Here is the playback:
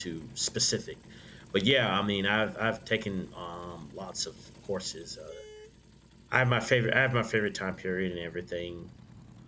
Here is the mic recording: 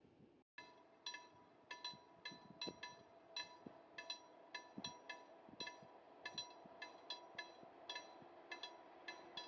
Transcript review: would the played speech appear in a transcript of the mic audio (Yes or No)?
No